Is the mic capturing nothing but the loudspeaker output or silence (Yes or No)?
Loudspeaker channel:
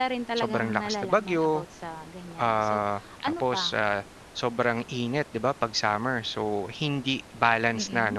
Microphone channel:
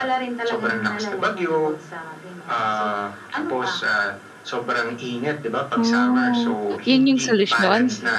No